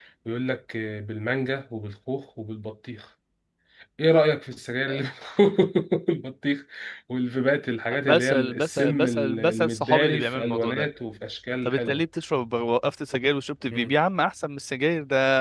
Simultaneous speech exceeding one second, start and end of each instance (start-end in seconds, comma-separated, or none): 7.9-10.9